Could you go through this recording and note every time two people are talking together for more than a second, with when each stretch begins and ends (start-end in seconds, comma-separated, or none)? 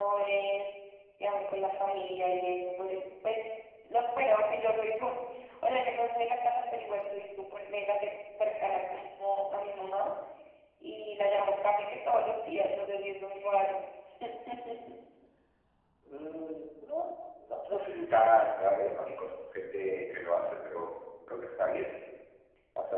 none